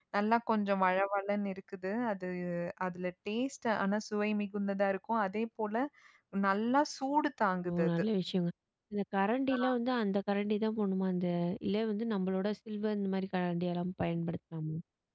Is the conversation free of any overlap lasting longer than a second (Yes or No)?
Yes